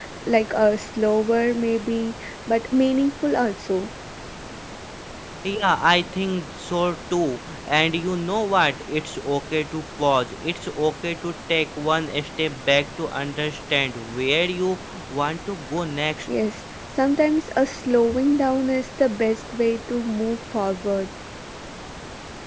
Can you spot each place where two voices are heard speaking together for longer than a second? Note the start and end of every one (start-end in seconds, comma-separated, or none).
none